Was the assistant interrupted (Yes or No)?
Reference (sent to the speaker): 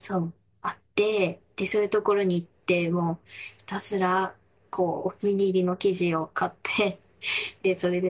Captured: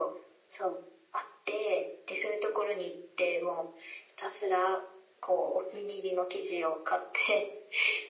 No